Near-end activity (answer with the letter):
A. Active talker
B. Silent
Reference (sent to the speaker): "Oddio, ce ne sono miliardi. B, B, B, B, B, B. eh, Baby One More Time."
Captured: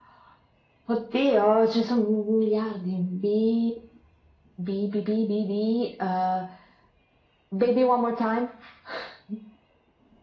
B